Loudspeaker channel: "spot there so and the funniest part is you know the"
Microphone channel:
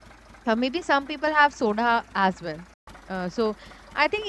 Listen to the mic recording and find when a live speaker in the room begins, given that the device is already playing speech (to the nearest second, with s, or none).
0 s